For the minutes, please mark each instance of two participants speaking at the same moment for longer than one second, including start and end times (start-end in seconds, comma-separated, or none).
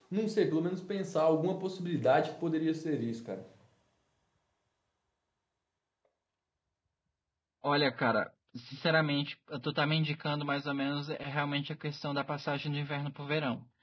none